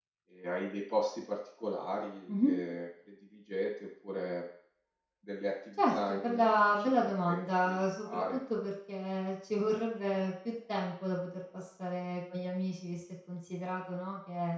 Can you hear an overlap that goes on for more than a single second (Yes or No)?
Yes